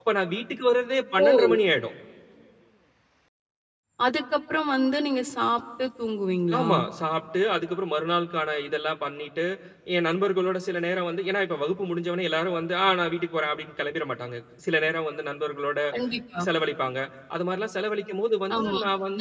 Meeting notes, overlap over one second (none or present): none